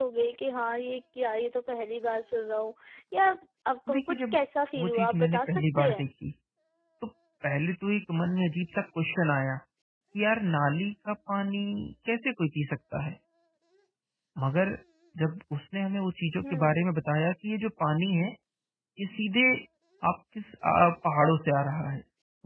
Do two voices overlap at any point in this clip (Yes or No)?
Yes